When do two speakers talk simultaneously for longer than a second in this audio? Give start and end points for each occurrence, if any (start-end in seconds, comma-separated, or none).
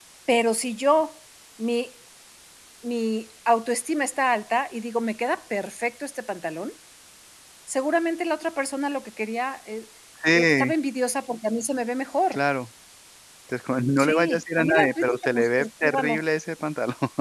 14.0-16.2